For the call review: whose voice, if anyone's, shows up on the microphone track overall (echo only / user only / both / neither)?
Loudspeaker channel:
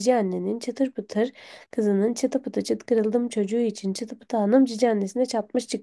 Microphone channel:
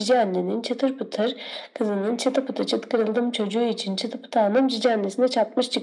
echo only